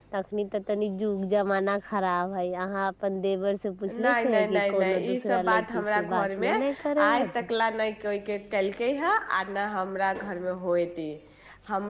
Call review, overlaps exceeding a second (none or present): present